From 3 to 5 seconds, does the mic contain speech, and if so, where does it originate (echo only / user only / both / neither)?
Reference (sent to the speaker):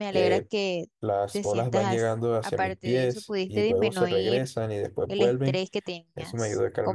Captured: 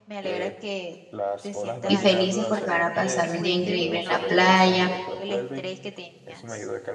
both